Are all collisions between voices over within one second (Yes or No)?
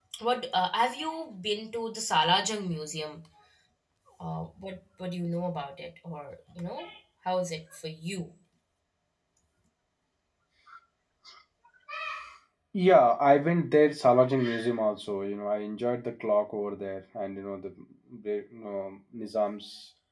Yes